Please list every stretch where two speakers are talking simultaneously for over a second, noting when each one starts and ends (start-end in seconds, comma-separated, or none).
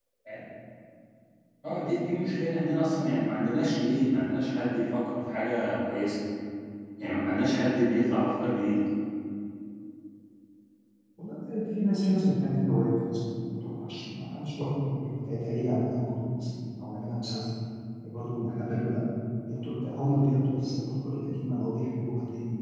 none